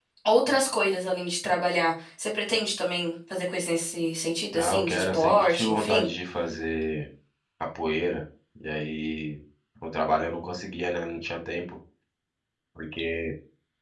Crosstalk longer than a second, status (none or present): present